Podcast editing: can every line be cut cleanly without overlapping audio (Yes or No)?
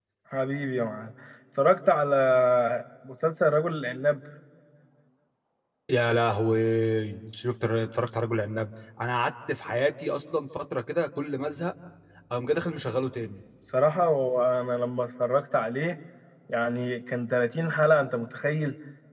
Yes